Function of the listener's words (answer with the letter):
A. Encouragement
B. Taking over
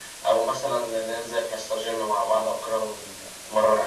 B